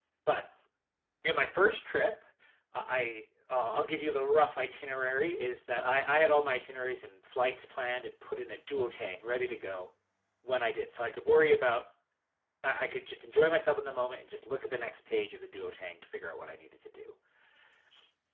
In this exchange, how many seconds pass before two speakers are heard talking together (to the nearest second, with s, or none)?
none